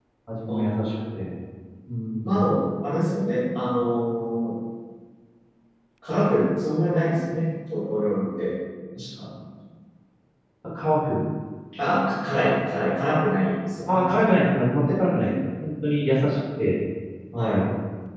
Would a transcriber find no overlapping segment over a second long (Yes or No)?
Yes